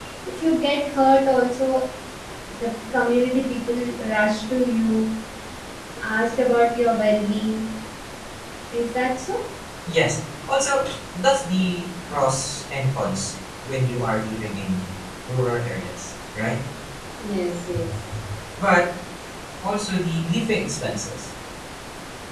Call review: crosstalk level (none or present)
none